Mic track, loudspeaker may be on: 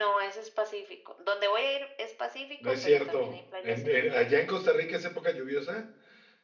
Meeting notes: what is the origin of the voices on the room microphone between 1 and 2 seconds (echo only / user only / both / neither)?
echo only